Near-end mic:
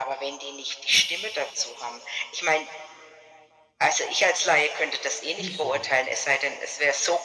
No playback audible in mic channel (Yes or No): No